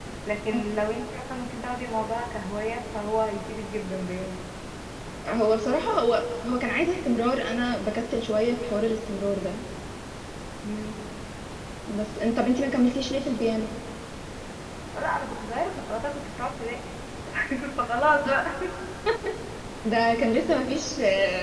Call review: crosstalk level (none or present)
none